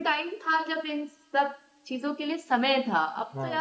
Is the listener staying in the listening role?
Yes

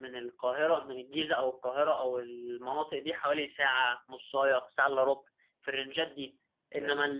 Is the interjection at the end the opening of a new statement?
No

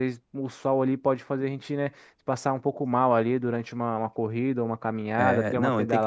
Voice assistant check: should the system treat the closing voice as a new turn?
Yes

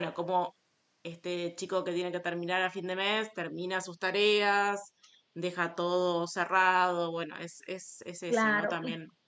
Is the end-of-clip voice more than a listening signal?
Yes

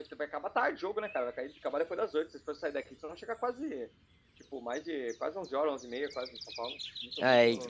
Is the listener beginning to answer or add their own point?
Yes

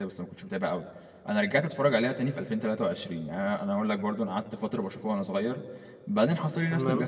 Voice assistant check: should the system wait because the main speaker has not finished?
Yes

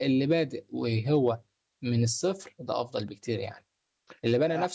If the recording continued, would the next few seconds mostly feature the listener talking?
No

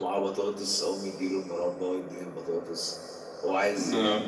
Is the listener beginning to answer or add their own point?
No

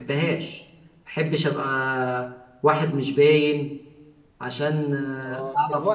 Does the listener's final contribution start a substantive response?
Yes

